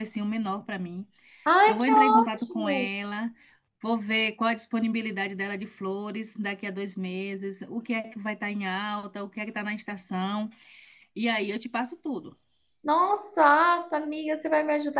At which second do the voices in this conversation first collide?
1.7 s

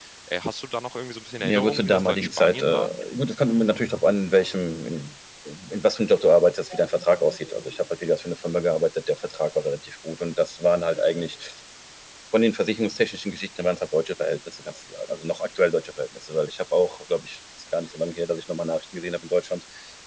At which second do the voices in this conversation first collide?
1.4 s

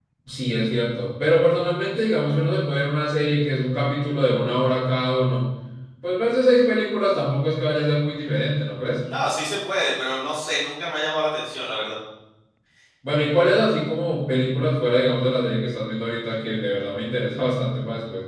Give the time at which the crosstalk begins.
none

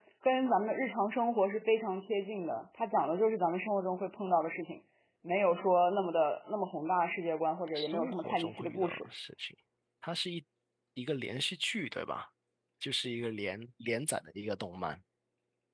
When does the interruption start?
7.8 s

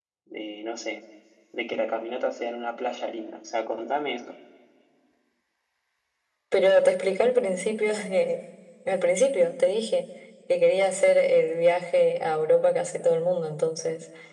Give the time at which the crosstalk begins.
none

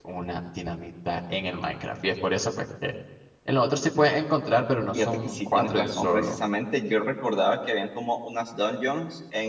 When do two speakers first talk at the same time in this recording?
5.0 s

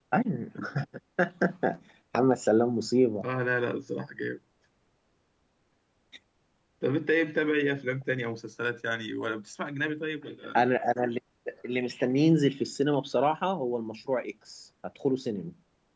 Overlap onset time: none

